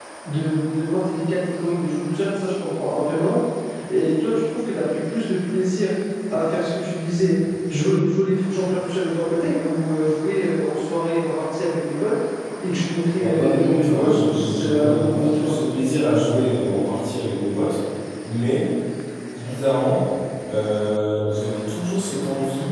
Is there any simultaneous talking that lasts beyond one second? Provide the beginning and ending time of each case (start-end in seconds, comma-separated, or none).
13.2-15.5